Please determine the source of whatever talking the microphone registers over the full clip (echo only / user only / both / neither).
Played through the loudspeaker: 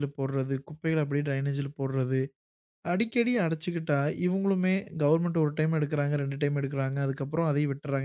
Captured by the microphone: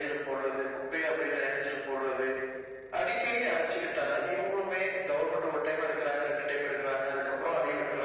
echo only